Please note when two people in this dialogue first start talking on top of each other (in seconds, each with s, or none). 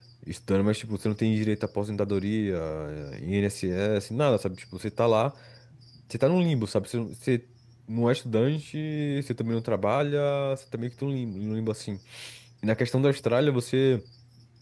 none